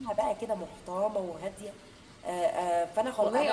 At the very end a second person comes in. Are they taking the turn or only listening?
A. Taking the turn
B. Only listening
A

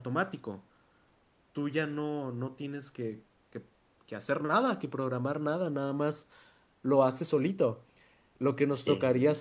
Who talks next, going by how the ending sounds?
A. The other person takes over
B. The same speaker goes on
B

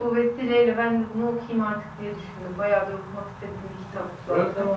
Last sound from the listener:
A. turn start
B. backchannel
A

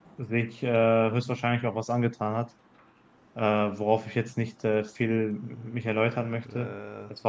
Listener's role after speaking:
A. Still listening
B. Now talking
A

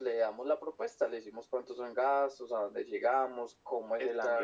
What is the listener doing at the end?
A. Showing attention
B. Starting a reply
A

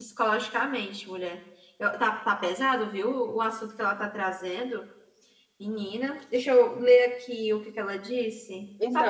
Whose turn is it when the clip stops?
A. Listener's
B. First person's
A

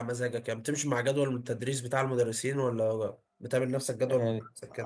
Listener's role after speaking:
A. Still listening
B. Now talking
B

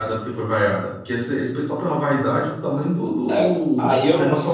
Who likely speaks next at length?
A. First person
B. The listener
B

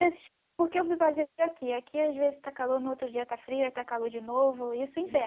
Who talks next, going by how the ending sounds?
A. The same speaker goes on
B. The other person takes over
B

